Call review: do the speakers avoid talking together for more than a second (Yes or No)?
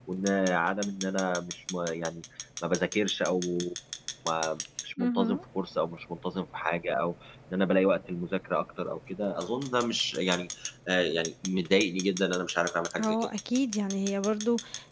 Yes